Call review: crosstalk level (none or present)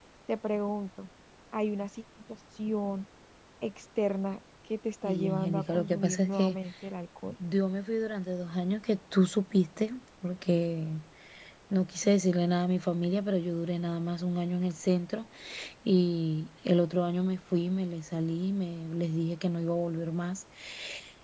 present